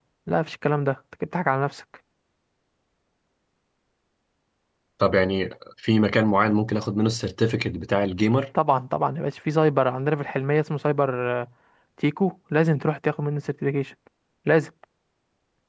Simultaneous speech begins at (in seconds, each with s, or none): none